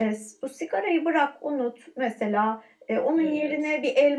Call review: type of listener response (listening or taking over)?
listening